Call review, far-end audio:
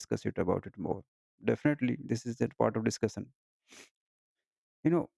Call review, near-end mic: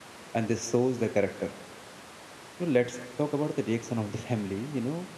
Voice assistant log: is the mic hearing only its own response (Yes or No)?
No